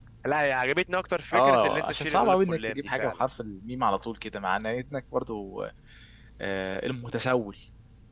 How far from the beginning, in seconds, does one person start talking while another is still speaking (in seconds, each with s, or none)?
1.3 s